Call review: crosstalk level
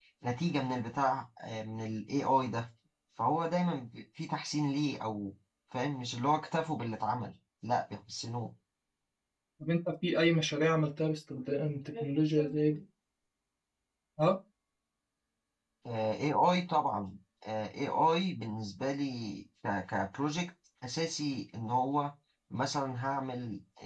none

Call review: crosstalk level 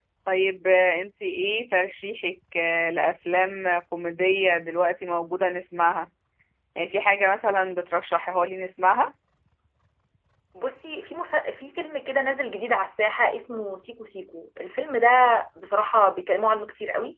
none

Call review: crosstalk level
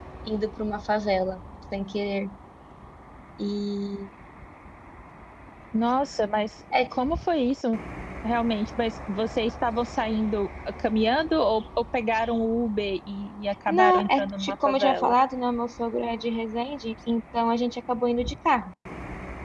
present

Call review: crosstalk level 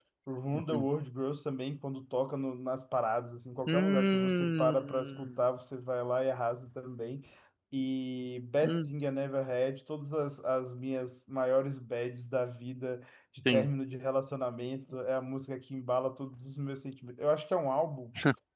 present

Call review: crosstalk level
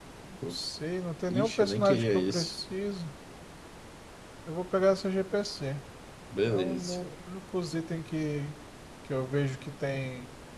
present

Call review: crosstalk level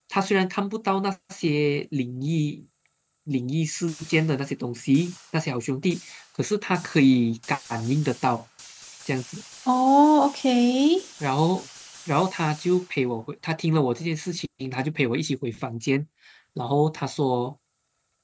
none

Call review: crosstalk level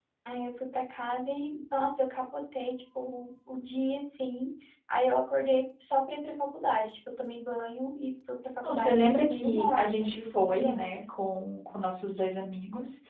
present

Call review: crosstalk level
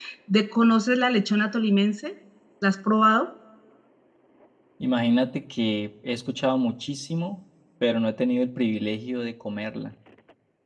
none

